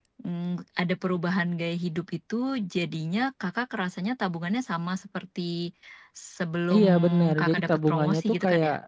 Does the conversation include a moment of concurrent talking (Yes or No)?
Yes